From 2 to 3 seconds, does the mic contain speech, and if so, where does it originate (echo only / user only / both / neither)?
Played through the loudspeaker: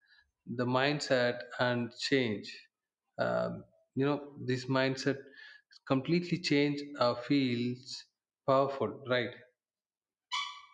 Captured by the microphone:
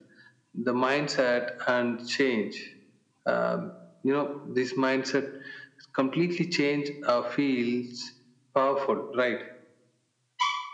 echo only